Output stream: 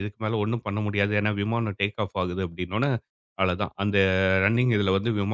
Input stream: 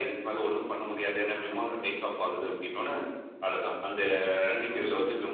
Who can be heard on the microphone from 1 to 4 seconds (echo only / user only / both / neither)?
echo only